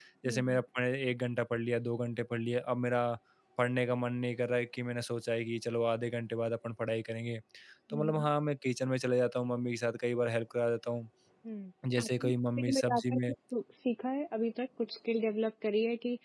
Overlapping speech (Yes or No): Yes